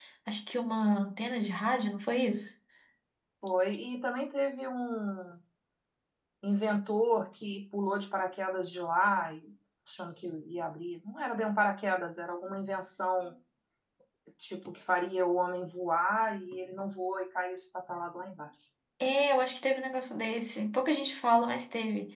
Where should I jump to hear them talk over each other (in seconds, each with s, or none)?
none